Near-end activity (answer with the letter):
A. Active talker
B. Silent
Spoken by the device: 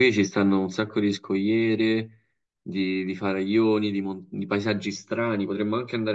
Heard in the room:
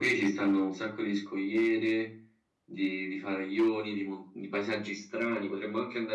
B